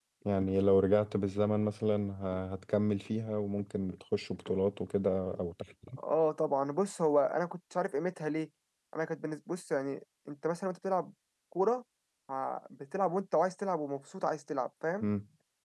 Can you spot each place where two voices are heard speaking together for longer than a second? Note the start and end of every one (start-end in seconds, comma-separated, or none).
none